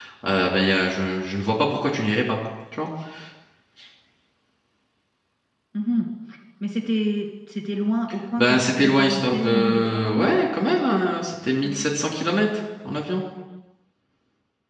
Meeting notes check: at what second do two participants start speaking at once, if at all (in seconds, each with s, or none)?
8.4 s